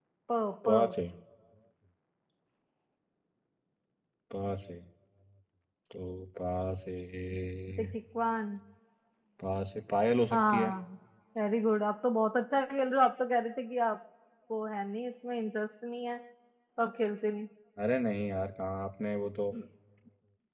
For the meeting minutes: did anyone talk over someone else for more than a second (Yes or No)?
No